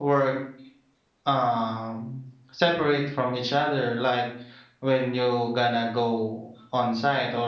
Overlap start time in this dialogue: none

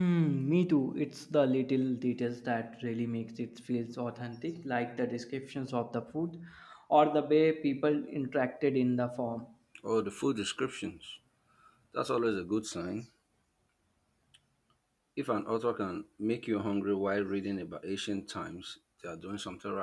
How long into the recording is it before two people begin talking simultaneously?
none

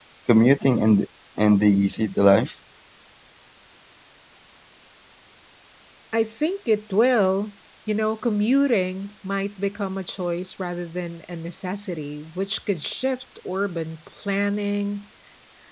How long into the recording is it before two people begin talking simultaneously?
none

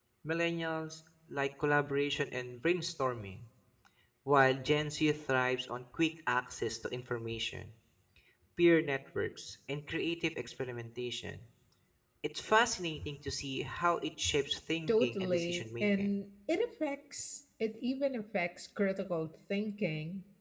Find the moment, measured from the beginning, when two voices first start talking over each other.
14.9 s

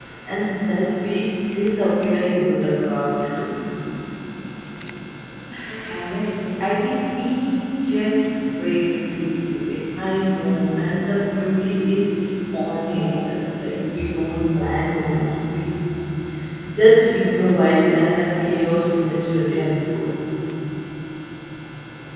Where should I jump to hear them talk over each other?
none

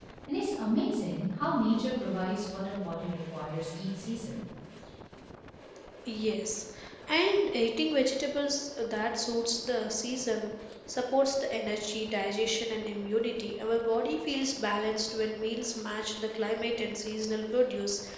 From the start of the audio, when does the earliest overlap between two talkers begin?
none

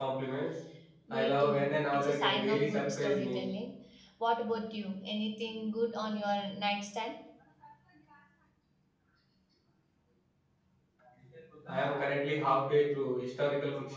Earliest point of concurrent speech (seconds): 1.1 s

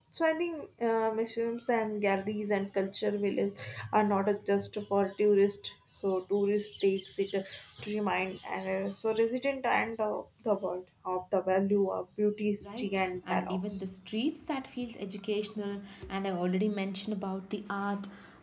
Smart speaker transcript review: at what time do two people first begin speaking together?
12.6 s

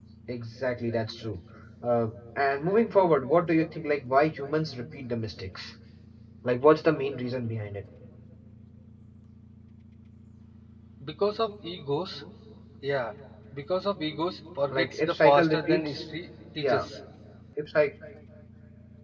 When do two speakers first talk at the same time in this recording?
14.7 s

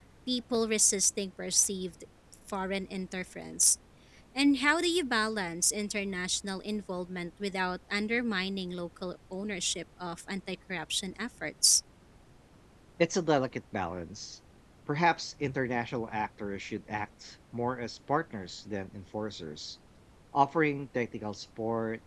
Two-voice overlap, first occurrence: none

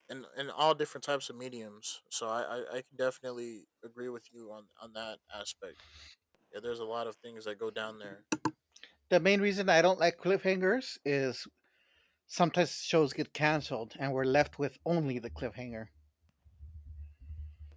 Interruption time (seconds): none

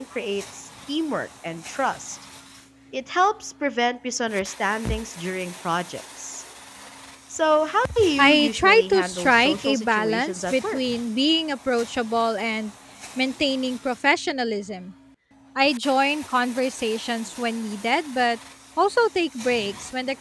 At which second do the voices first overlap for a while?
8.0 s

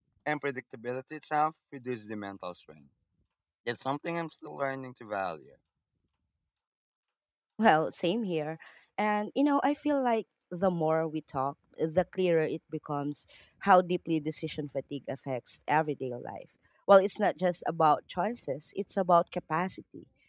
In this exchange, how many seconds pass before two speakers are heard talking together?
none

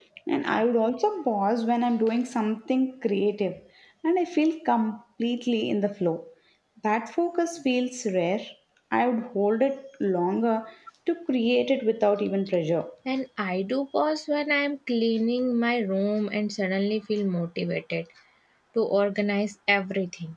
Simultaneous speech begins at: none

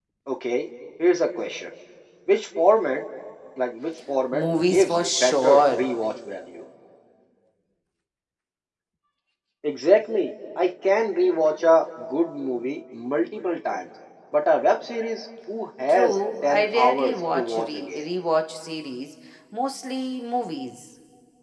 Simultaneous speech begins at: 4.3 s

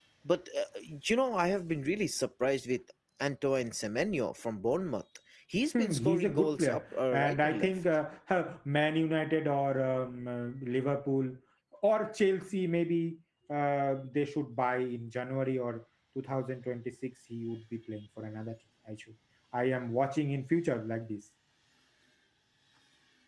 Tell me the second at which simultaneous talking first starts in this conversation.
5.7 s

